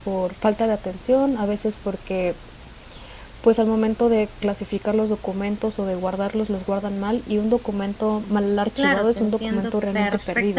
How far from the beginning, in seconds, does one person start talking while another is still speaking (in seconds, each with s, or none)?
8.8 s